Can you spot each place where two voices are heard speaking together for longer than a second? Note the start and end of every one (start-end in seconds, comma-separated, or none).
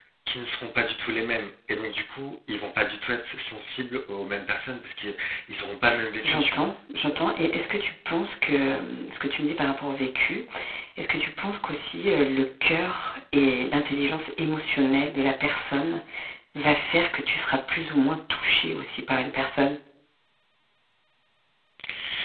none